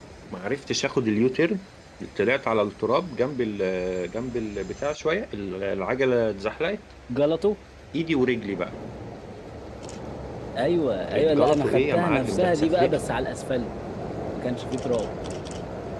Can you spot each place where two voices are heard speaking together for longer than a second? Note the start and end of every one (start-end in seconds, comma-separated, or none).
11.1-13.0